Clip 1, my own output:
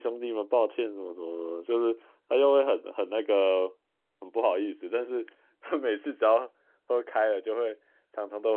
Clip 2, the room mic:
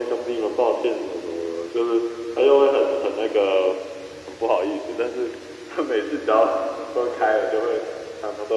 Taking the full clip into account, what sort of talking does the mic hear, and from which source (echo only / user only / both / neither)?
echo only